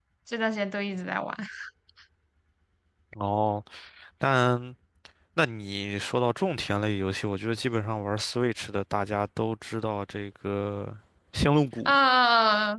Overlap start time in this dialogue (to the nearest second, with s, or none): none